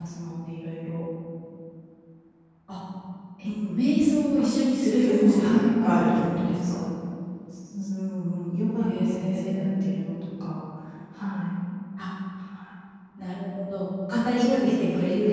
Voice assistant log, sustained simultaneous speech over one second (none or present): present